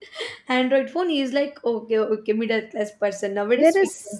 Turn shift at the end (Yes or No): Yes